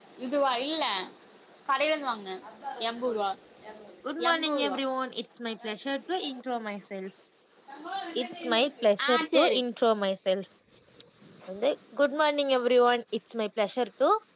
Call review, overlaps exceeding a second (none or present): present